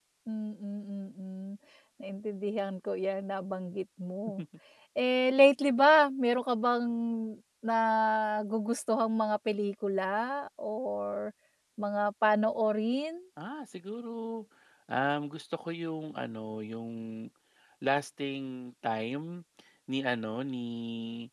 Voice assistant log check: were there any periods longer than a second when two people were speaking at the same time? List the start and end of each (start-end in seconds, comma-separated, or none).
none